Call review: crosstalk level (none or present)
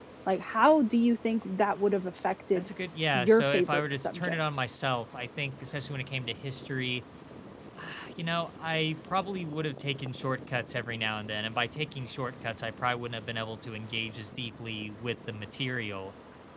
present